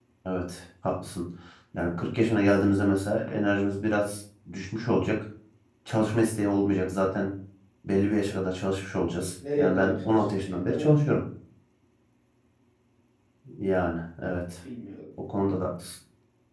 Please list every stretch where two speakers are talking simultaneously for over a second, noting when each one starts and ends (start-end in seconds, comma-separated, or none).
9.6-10.9